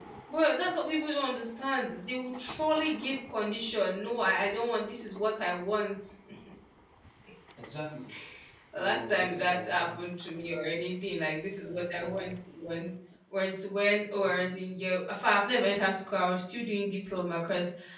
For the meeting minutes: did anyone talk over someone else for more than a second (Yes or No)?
Yes